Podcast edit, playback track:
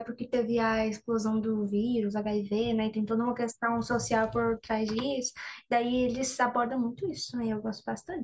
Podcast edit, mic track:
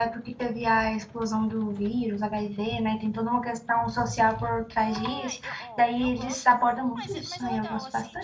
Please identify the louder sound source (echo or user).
echo